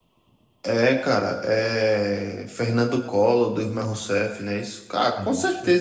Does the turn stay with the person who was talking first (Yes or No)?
Yes